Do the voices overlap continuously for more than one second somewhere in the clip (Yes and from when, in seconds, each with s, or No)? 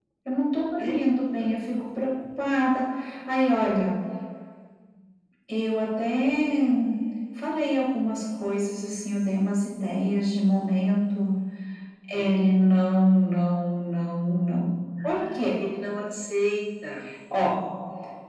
No